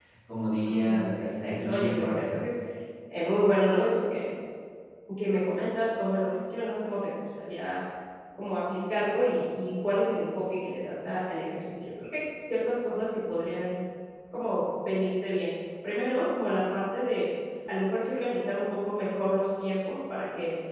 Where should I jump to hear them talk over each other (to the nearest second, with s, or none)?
1 s